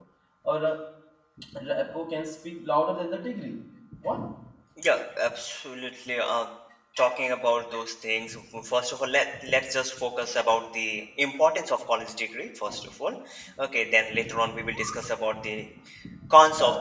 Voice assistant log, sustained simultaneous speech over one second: none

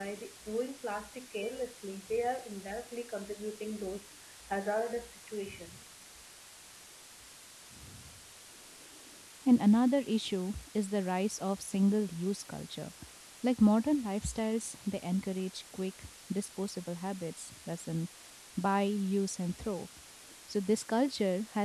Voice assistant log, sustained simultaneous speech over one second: none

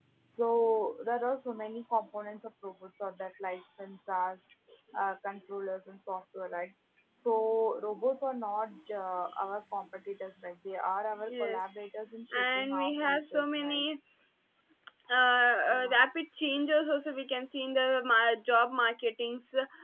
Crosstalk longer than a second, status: present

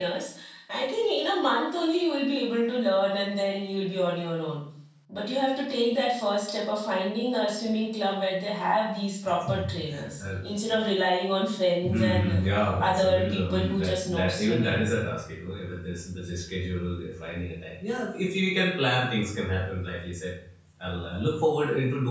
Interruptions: present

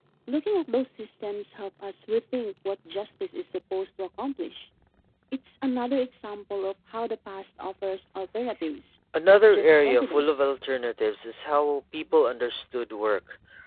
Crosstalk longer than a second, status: present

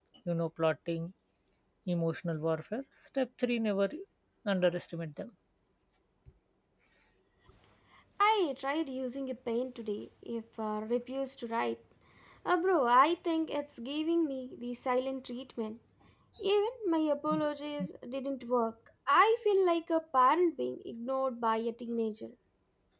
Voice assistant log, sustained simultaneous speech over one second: none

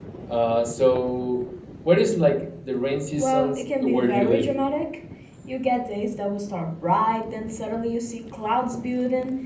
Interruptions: present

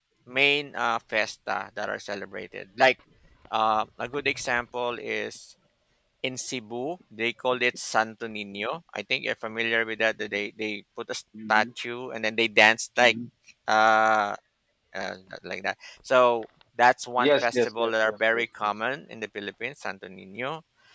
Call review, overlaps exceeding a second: present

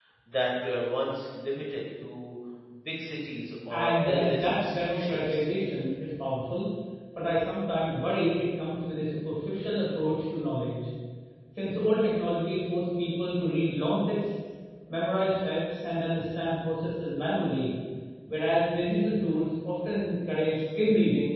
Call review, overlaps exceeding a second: present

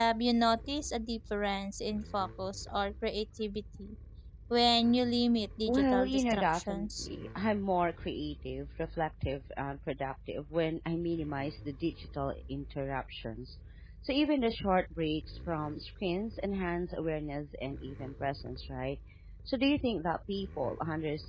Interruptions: present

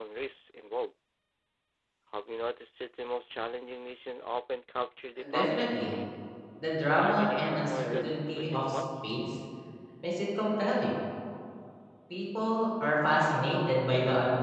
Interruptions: present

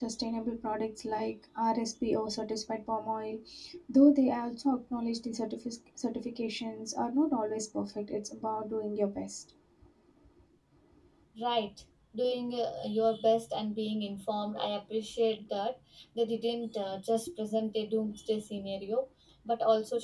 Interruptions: none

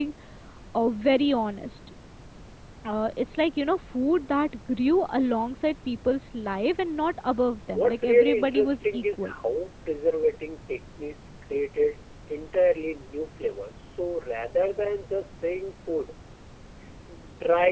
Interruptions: present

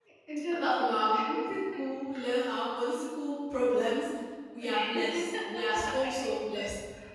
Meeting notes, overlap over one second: present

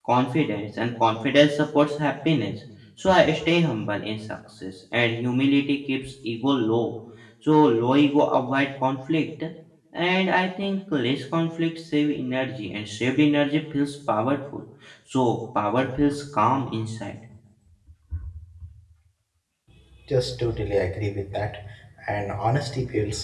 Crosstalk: none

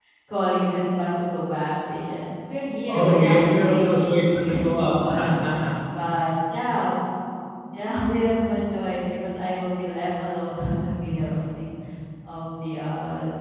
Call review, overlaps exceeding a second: present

